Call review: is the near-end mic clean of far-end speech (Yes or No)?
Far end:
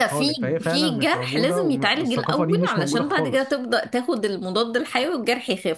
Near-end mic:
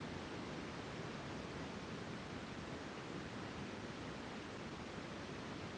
Yes